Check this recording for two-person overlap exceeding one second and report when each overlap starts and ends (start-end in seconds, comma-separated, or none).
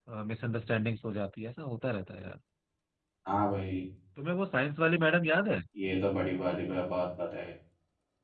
none